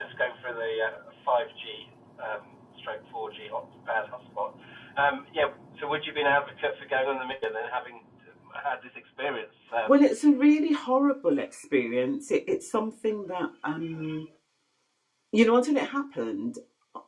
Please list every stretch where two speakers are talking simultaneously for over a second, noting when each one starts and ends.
none

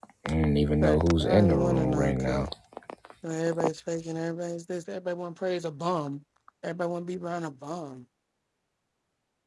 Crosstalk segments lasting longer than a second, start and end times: 0.8-2.5

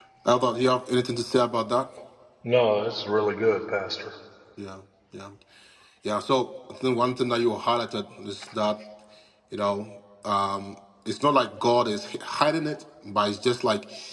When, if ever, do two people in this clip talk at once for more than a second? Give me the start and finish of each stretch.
none

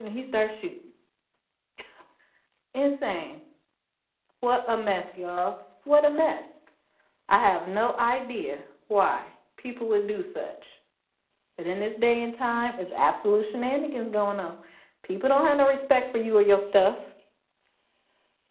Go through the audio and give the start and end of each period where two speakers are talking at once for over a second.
none

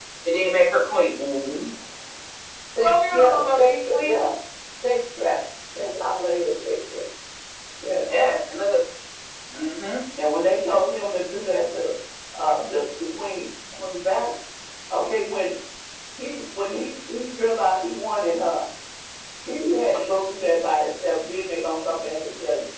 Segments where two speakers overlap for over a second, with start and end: 2.8-4.1

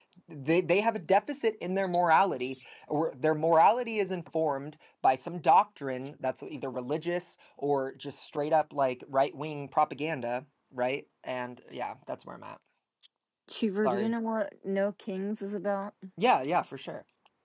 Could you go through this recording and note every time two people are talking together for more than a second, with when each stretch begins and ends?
none

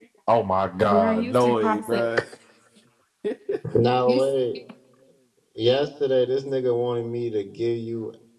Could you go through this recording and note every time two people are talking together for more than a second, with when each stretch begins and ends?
0.8-2.1

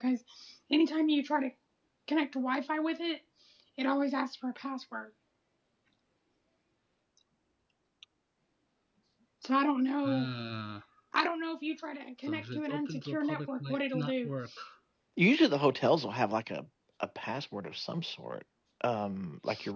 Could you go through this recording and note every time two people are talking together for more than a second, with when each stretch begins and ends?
12.3-14.3

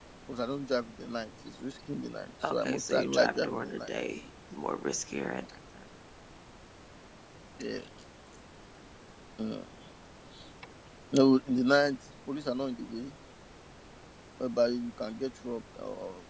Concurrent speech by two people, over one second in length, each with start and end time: 2.5-3.9

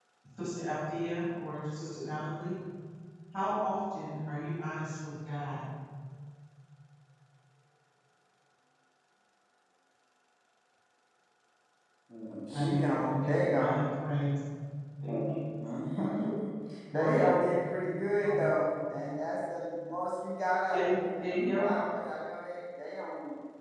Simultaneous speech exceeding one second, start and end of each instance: 12.5-13.8

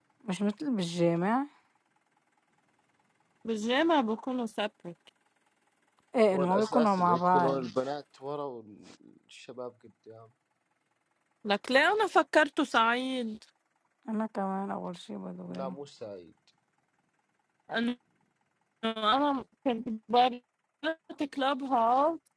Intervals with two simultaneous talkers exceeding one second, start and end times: 6.3-7.6

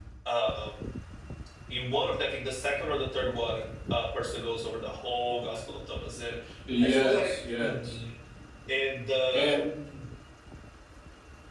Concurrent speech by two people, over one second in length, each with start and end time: 6.8-8.0

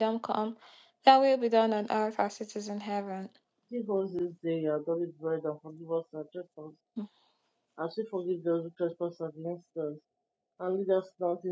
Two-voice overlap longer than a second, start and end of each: none

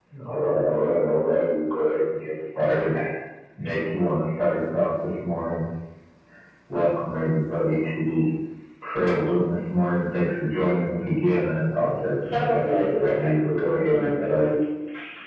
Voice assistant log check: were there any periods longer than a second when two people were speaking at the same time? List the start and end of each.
12.3-14.5

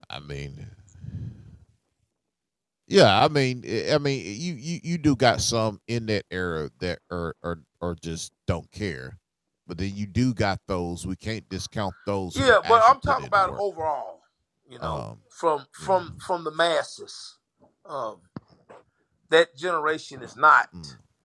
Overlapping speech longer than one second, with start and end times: 12.4-13.6

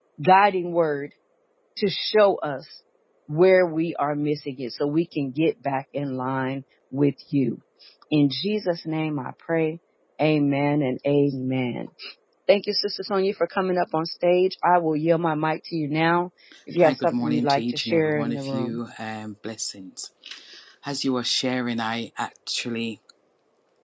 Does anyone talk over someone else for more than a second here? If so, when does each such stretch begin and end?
16.8-18.8

